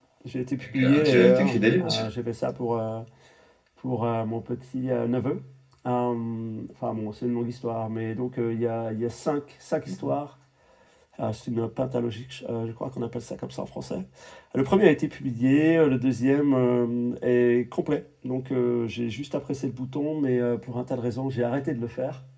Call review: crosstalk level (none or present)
present